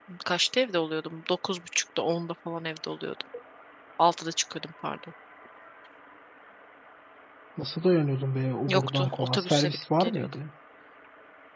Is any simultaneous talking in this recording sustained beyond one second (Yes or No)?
Yes